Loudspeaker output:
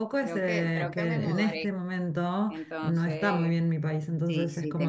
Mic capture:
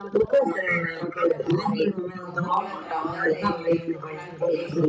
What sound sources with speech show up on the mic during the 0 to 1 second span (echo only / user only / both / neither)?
echo only